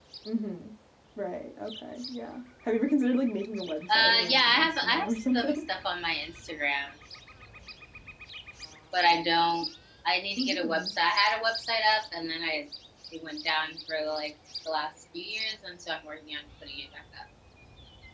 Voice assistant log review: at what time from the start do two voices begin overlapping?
4.0 s

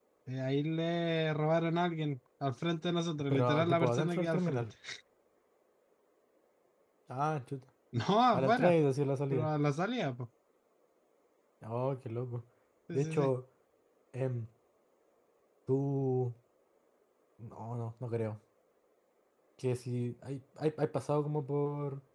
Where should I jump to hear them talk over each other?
3.3 s

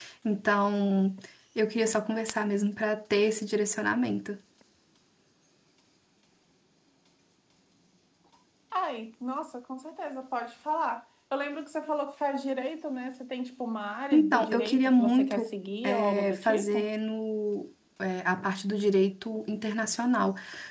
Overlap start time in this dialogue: 14.1 s

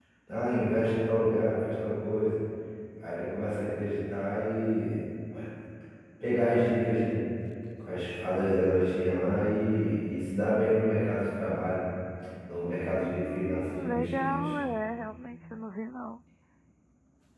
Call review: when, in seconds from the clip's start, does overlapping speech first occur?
13.0 s

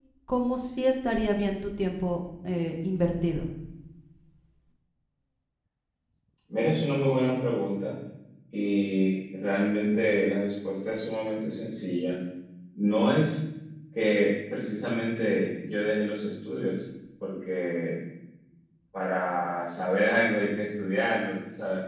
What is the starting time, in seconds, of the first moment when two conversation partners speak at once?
none

